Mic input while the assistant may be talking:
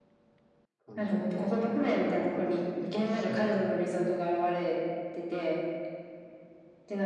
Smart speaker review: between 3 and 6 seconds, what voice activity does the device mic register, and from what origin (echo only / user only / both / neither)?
echo only